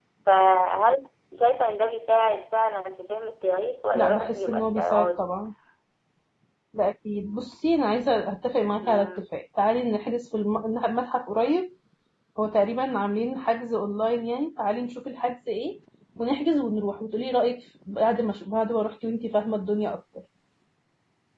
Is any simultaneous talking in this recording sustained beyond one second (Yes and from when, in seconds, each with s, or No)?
Yes, from 4.0 s